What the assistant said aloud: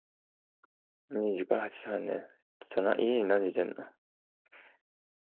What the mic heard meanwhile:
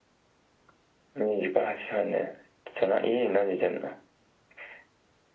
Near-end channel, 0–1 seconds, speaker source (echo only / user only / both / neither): neither